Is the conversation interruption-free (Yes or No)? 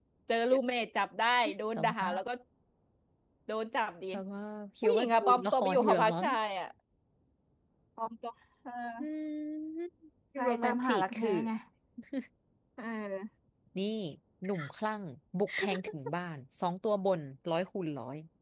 No